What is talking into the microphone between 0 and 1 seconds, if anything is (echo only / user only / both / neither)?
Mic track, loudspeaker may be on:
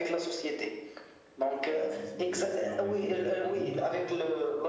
echo only